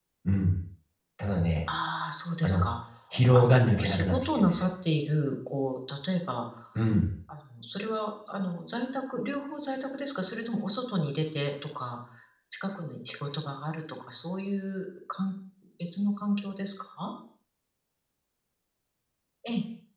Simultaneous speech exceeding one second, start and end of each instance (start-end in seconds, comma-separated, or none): 3.3-4.7